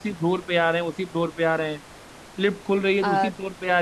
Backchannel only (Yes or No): Yes